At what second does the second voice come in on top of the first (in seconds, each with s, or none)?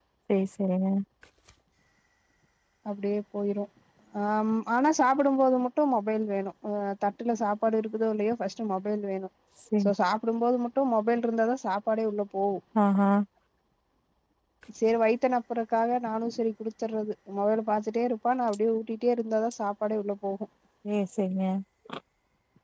none